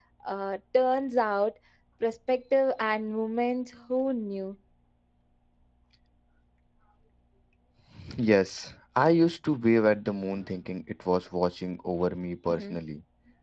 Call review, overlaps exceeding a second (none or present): none